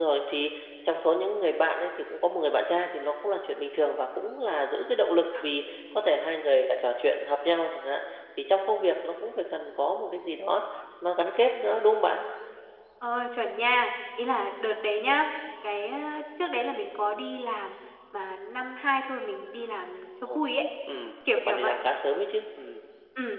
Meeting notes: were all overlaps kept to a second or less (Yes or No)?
Yes